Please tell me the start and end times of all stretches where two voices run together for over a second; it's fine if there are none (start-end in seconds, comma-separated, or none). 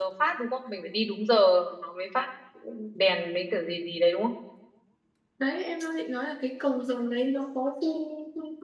none